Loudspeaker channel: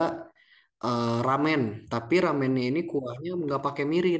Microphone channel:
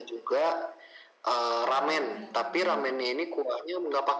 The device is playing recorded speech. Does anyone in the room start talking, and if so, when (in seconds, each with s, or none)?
1.7 s